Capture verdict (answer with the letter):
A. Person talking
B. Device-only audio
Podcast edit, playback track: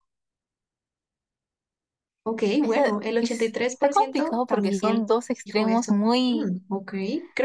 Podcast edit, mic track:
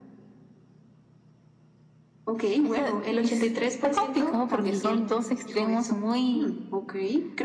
B